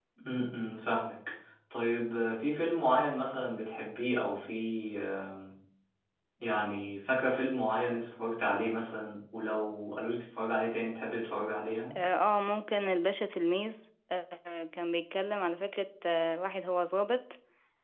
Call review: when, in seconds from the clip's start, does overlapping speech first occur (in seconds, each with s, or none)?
none